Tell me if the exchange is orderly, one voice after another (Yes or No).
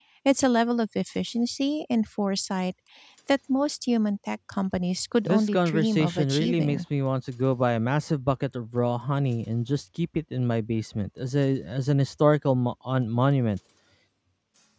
No